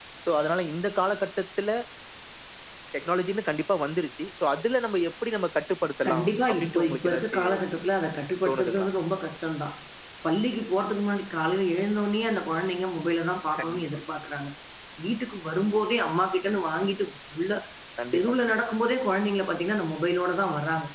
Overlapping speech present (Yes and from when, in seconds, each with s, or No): Yes, from 6.1 s